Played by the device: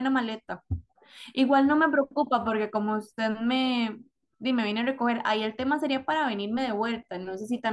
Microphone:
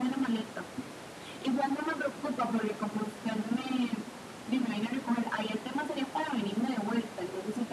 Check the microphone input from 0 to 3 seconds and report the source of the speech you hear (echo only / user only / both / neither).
echo only